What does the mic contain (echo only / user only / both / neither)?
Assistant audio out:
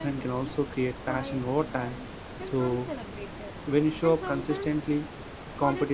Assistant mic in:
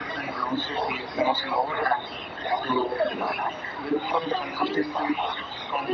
echo only